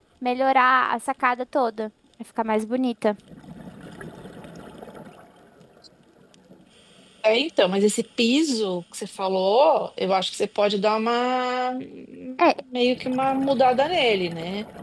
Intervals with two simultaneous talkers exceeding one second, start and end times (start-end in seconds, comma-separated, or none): none